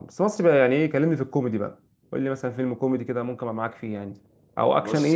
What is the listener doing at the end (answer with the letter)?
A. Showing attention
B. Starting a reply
A